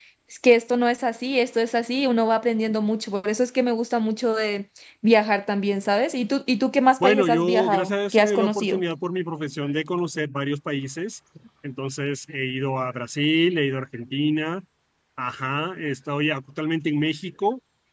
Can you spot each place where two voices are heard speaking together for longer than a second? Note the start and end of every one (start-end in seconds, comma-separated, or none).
7.0-8.8